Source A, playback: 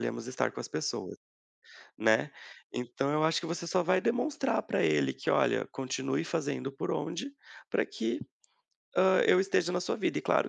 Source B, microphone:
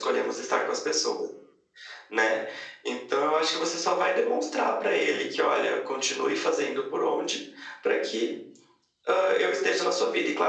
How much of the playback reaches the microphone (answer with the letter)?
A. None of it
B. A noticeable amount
B